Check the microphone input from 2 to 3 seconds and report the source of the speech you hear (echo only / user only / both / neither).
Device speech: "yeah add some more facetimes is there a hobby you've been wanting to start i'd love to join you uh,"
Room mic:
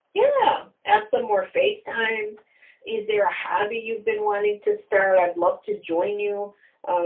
echo only